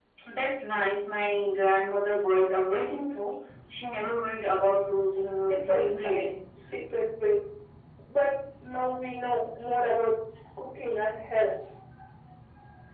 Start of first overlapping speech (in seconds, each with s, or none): 5.5 s